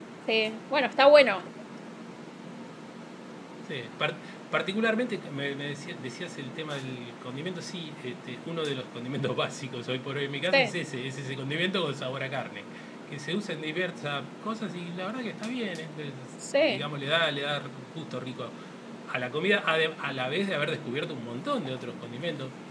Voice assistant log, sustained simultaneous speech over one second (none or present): none